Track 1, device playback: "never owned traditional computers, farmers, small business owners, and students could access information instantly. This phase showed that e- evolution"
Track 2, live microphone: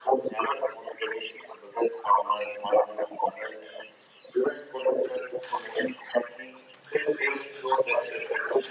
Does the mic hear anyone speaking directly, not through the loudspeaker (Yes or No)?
No